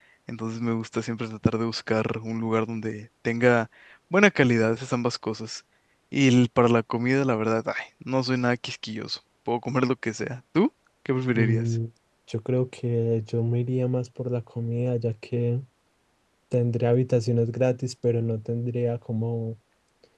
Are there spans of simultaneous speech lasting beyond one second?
No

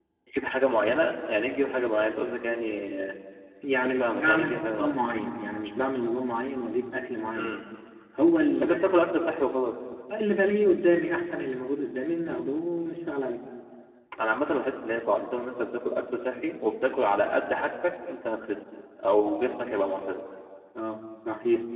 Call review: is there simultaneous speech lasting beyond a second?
Yes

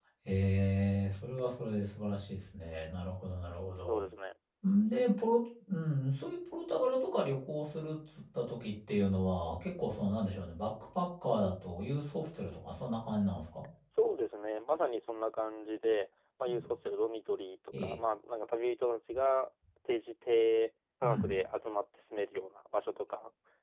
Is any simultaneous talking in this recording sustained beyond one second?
No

